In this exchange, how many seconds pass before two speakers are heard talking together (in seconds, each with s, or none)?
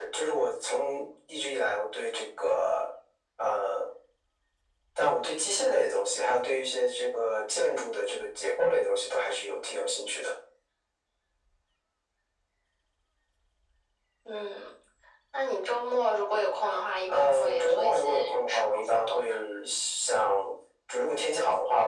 17.1 s